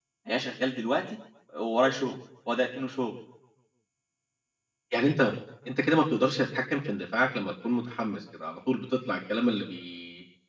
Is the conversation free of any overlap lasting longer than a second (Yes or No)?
Yes